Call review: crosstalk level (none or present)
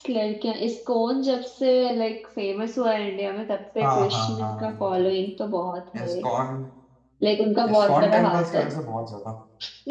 present